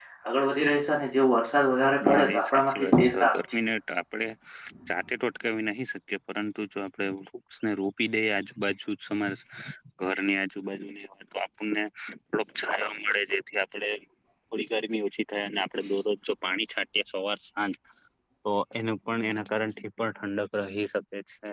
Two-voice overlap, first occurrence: 2.0 s

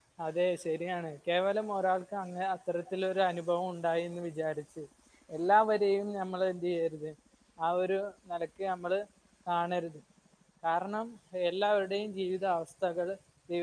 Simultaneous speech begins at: none

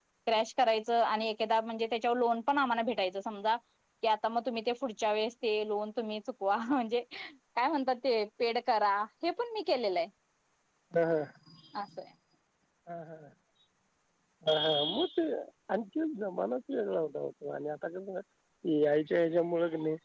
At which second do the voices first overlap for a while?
none

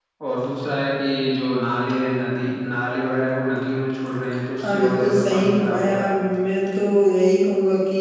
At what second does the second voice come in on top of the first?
4.6 s

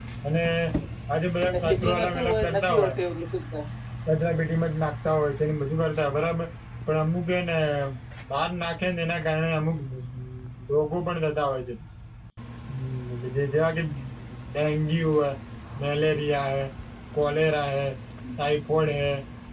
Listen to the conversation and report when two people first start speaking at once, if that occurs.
1.7 s

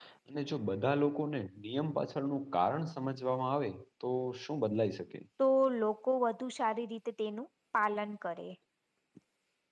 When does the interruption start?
none

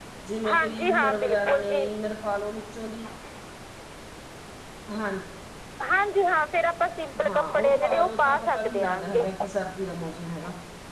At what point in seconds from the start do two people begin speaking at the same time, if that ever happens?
0.5 s

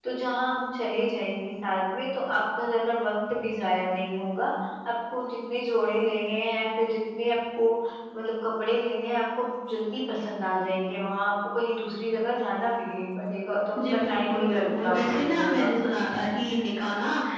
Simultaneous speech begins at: 13.8 s

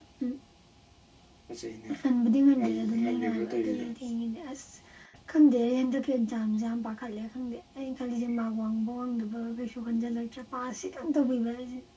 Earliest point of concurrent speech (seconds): 2.6 s

